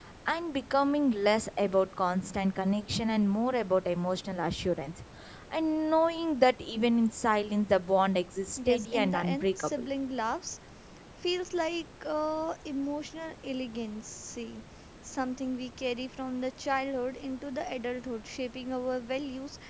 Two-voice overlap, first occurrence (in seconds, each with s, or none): 8.6 s